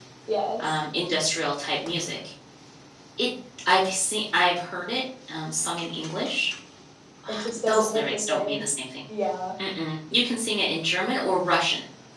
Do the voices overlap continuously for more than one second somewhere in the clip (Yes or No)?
Yes